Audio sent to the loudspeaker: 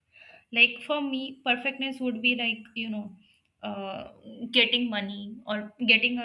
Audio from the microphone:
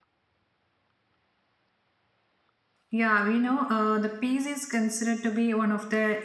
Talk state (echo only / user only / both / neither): user only